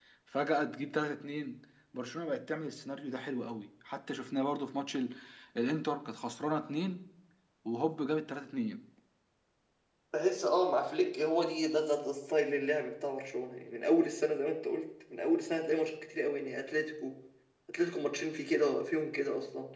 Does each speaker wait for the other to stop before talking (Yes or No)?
Yes